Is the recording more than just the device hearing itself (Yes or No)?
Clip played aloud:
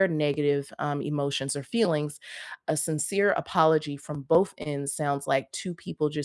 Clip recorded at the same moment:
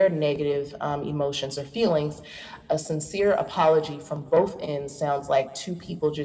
No